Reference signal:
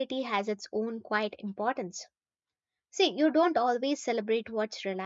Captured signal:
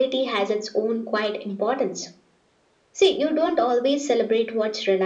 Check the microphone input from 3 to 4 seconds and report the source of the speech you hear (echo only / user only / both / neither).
echo only